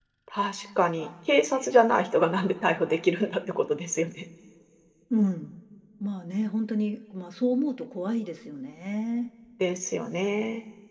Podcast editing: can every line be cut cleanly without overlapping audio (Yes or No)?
Yes